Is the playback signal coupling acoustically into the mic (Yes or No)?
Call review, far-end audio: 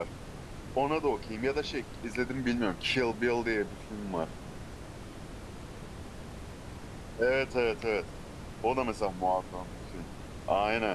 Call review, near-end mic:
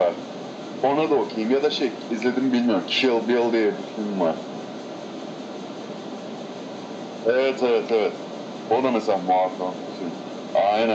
Yes